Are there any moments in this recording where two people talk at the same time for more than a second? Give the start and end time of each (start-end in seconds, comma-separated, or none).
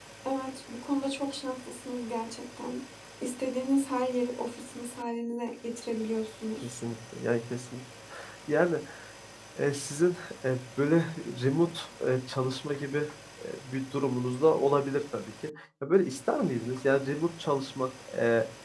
none